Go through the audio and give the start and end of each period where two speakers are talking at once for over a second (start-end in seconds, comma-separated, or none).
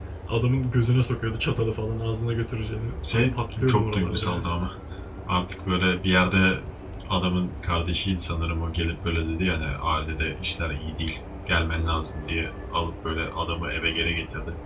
3.0-4.4